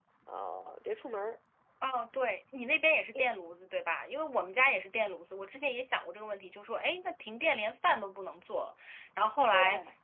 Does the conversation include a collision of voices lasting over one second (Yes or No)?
No